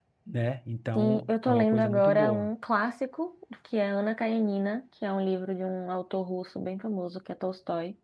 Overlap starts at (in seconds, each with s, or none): 0.9 s